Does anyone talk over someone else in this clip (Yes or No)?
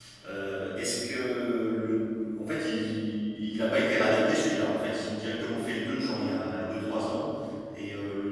No